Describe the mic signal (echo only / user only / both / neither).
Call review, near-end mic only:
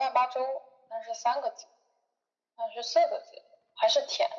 echo only